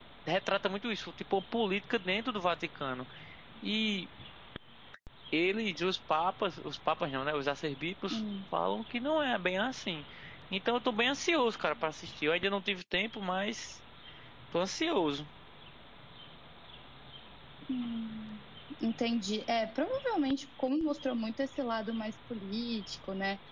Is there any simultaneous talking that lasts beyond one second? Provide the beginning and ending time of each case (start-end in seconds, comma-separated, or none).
none